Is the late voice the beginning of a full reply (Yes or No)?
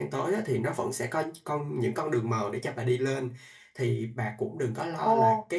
No